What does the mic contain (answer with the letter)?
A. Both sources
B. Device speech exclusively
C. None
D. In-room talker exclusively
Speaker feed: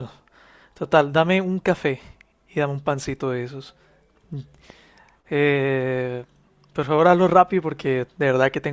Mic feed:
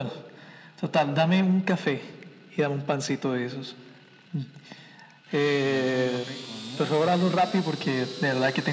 A